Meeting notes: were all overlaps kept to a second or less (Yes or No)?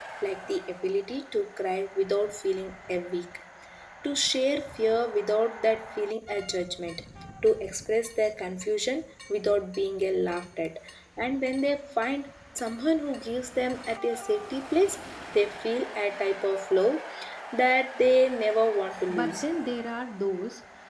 Yes